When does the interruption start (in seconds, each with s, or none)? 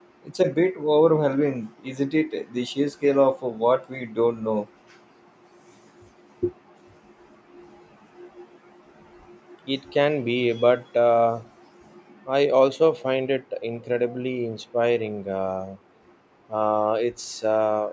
none